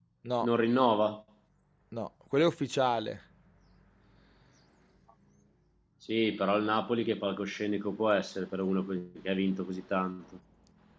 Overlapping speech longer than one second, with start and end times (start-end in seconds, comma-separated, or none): none